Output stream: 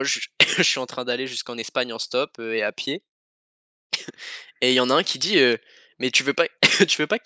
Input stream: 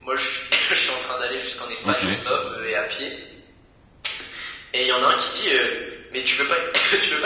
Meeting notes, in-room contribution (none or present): present